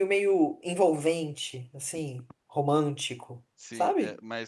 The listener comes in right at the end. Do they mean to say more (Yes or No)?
Yes